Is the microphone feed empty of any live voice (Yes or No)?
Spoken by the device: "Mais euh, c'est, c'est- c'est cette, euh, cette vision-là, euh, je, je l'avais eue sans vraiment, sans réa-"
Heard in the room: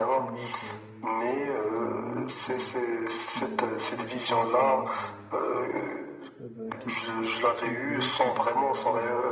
No